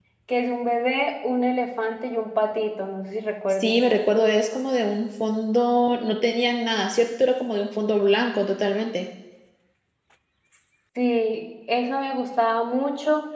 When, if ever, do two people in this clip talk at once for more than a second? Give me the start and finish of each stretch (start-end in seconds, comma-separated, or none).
none